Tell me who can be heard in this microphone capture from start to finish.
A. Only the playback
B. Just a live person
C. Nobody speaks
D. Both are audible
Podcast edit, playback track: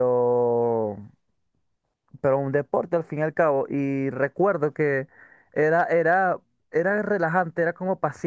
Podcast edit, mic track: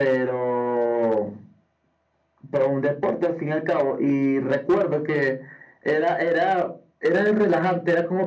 A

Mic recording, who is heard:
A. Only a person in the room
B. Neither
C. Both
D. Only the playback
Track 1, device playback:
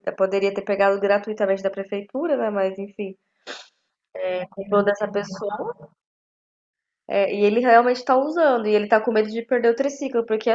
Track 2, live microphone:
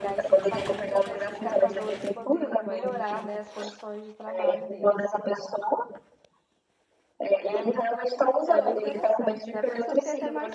C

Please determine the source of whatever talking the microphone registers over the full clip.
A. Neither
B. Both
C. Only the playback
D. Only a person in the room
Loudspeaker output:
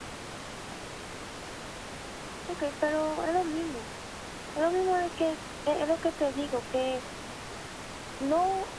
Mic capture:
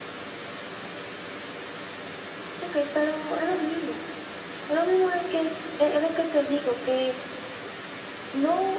C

